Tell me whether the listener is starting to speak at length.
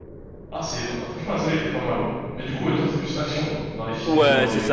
Yes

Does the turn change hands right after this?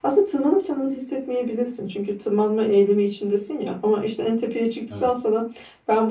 No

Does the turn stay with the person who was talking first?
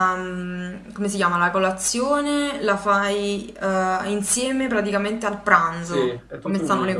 No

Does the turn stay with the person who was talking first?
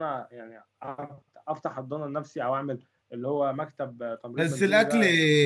No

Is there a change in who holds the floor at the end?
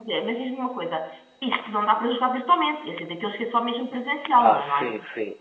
Yes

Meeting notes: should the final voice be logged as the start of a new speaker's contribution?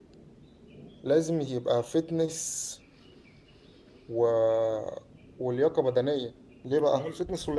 No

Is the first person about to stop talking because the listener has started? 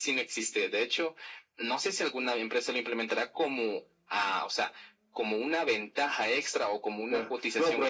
Yes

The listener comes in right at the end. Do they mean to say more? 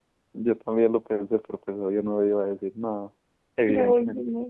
Yes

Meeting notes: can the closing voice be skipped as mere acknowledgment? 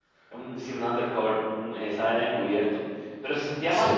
Yes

